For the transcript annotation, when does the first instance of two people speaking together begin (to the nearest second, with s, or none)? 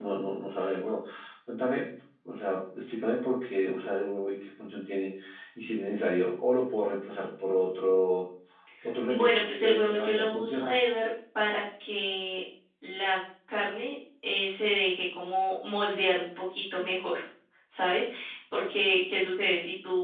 9 s